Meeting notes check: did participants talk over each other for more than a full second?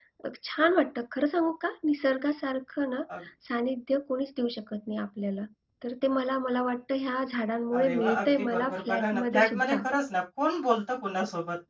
Yes, from 7.7 s

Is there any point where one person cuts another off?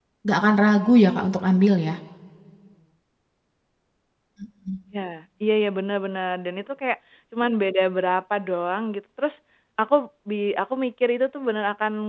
No

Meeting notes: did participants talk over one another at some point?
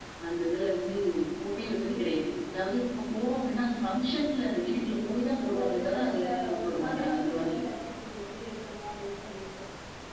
Yes, from 5.5 s

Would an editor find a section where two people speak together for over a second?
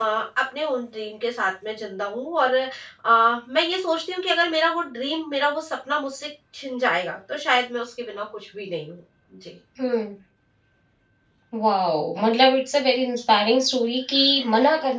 No

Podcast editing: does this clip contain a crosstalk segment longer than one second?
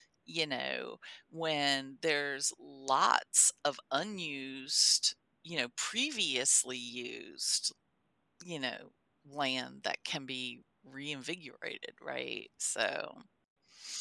No

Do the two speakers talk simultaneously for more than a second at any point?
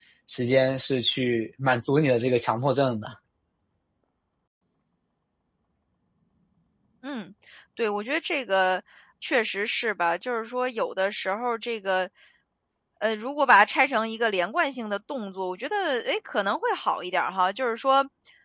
No

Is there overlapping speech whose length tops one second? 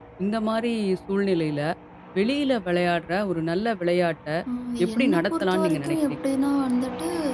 Yes, from 5.0 s

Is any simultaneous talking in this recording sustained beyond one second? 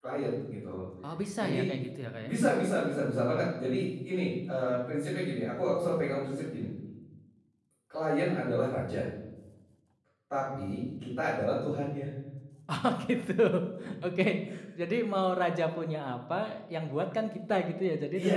No

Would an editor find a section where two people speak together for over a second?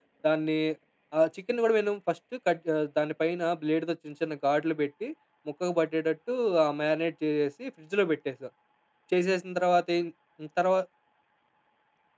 No

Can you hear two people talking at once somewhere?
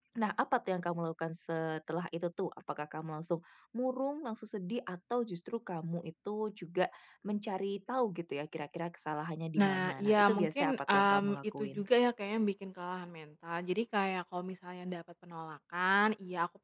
Yes, from 9.6 s

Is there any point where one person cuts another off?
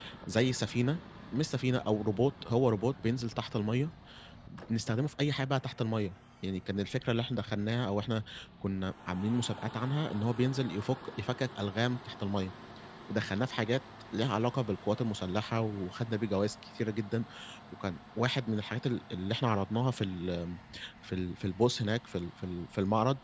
No

